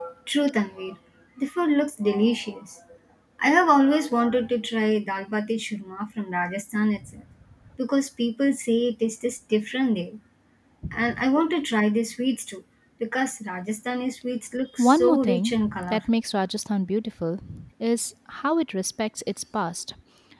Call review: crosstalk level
present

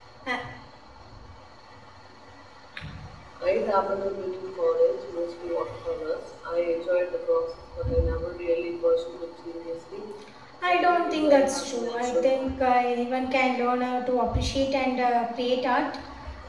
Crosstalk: present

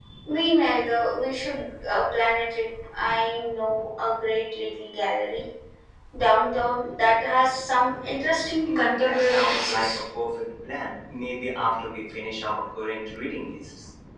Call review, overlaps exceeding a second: present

